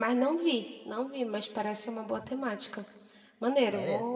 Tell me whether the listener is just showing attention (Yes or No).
Yes